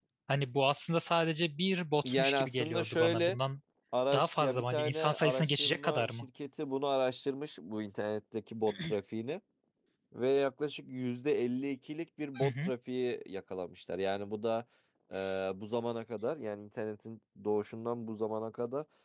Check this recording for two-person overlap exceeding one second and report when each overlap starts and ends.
2.0-3.4, 4.1-6.3

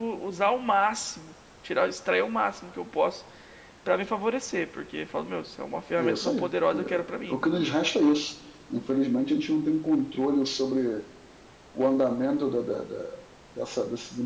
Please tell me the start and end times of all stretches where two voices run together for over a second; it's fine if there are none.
6.0-7.7

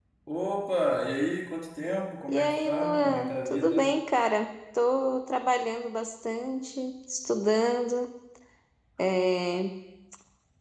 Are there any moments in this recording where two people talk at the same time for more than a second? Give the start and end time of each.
2.3-3.9

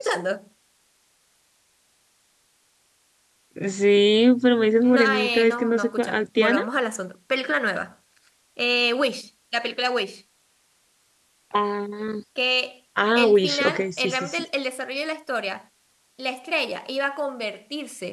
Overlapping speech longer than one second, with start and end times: 4.6-6.6, 13.2-14.4

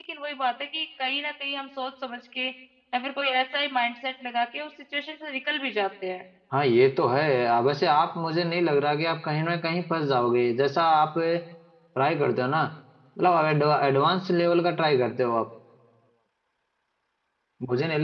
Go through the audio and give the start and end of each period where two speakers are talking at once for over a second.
none

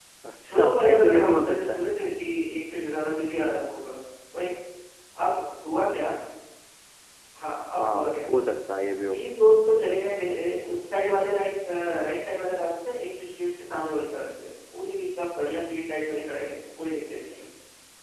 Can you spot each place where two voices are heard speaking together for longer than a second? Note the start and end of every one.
0.5-1.8

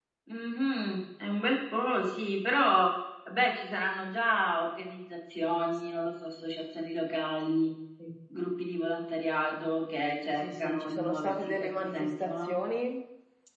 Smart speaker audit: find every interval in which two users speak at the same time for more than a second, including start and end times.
10.4-12.6

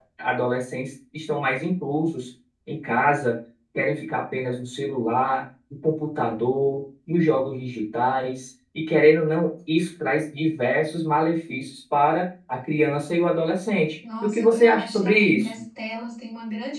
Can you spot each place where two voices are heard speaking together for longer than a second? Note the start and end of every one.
14.2-15.5

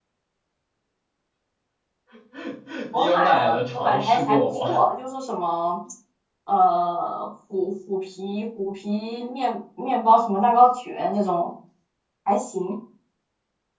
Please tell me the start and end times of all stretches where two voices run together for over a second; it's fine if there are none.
2.9-4.7

